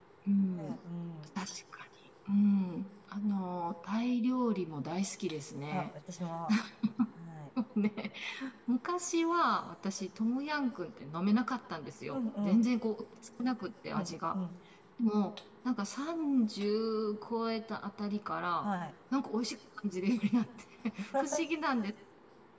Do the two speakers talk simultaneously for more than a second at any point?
No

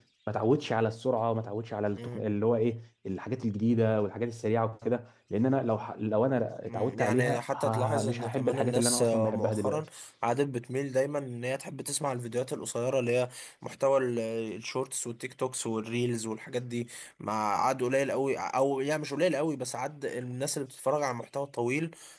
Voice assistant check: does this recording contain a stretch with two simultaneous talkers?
Yes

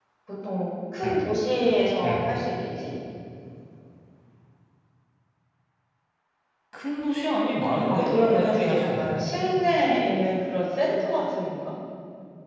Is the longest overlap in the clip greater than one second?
Yes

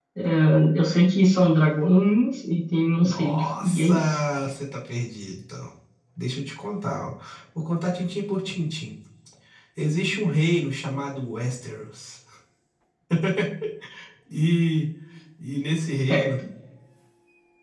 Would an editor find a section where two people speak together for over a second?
Yes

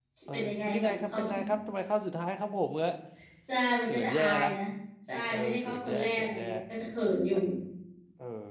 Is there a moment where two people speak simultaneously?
Yes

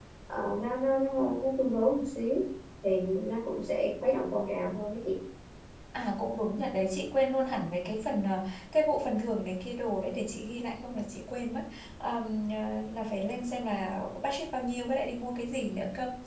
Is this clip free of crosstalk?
Yes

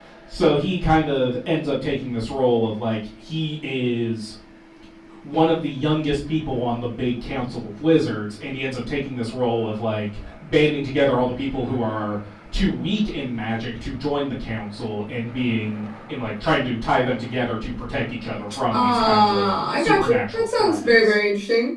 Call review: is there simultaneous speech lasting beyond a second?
Yes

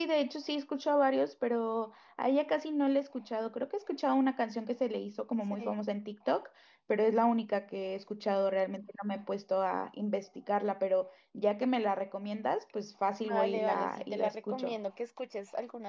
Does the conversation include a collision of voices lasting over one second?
Yes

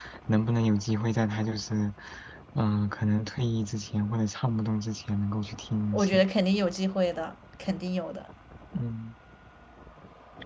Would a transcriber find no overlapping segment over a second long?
Yes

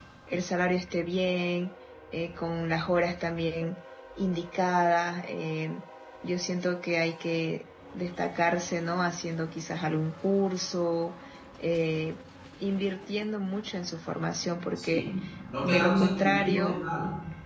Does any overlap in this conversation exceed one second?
Yes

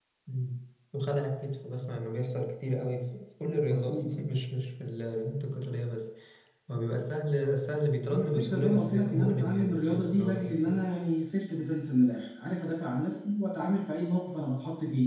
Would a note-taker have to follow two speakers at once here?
Yes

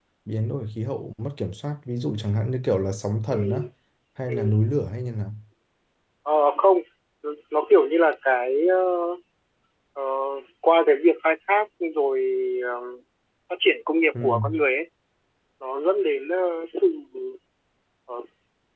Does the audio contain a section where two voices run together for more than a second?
No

